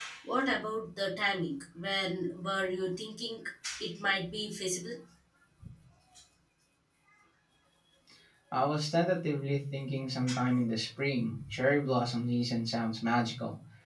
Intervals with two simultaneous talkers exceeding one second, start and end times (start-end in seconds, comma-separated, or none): none